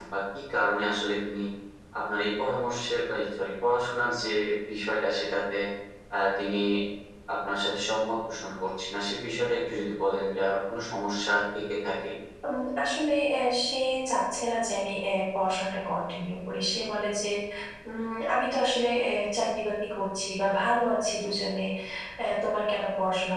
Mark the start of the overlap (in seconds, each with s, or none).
none